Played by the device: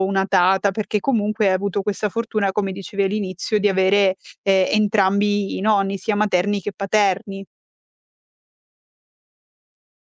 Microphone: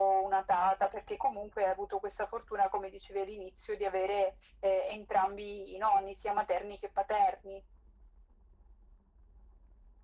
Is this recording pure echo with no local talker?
Yes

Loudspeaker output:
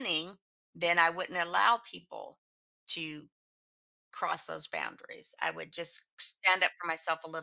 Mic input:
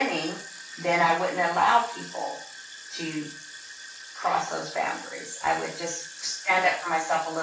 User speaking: No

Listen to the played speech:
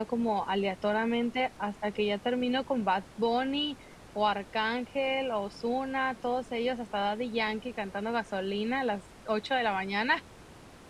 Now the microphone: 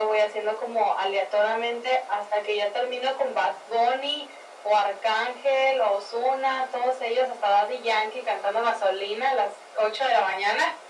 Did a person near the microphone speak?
No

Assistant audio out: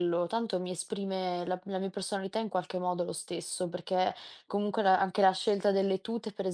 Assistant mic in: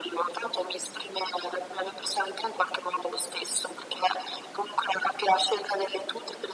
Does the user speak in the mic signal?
No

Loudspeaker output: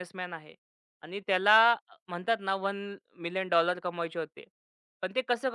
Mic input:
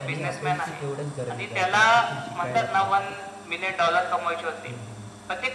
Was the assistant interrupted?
Yes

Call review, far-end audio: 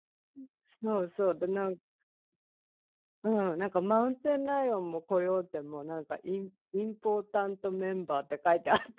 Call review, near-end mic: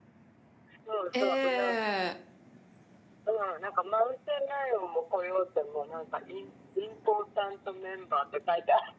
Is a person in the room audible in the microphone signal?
Yes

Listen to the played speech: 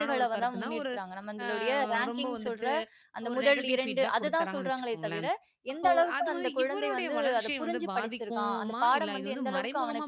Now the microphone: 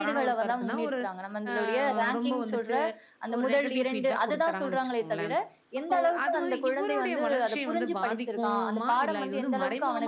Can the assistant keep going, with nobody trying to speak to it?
Yes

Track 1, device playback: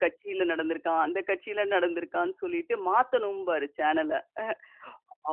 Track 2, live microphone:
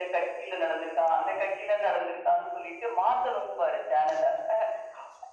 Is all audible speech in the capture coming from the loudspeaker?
Yes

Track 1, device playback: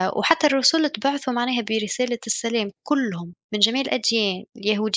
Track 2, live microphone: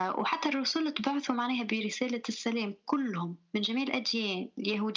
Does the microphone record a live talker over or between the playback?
No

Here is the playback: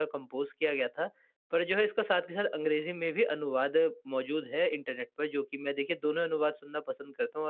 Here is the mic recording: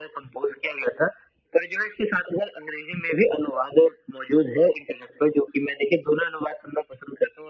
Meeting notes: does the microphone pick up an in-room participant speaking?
No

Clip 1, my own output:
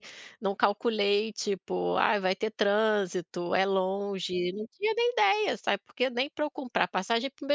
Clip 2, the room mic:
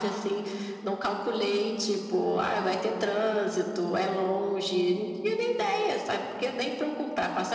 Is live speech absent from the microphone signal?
Yes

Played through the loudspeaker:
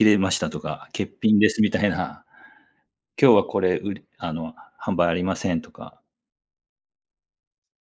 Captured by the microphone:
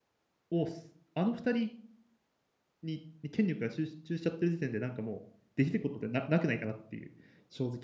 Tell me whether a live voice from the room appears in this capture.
Yes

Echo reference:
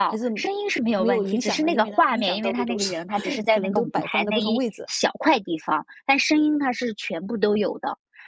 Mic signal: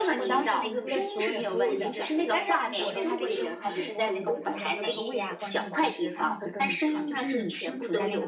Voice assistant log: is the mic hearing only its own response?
No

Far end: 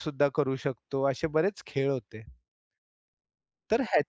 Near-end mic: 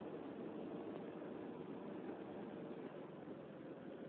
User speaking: No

